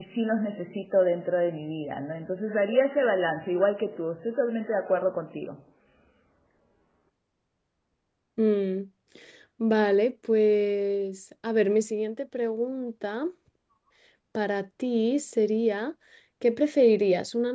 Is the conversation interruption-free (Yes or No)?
Yes